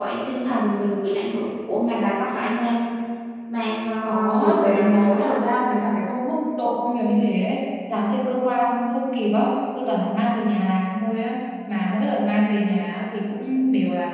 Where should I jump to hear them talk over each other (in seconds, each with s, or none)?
4.0 s